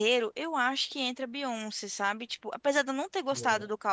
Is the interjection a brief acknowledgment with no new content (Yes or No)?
Yes